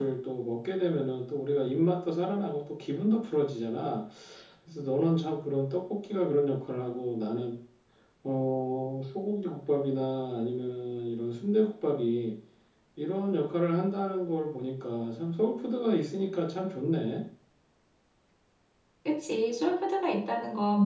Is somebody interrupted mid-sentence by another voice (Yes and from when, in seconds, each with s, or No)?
No